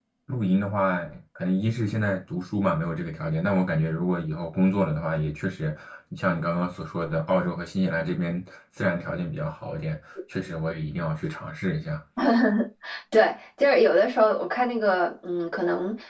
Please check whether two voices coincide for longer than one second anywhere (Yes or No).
No